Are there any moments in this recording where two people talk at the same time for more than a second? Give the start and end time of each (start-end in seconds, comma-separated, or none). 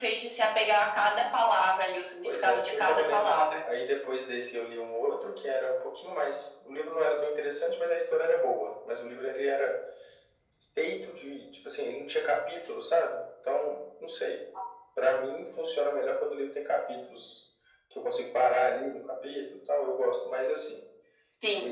2.2-3.5